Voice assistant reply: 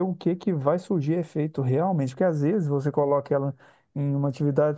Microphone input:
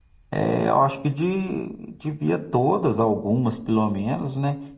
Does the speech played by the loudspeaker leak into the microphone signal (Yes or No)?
No